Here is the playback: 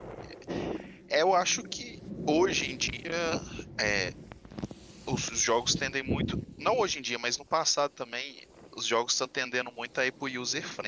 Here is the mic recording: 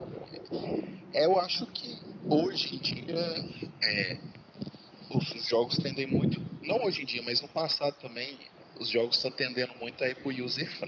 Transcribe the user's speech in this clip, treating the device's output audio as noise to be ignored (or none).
none